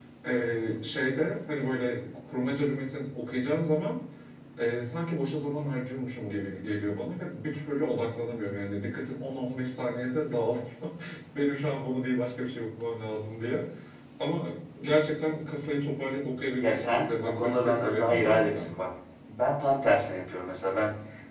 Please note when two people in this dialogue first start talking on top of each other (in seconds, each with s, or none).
16.6 s